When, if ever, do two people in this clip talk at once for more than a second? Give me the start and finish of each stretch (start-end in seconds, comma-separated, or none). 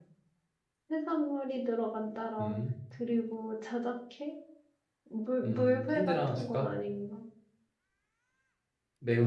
5.4-6.7